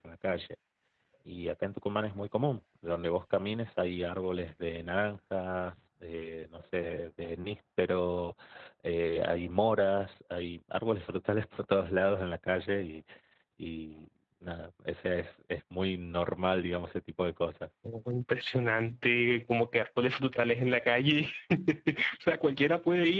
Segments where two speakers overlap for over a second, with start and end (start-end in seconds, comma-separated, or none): none